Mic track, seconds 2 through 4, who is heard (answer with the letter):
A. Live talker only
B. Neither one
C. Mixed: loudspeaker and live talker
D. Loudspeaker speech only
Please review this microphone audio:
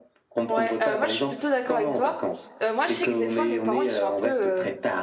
C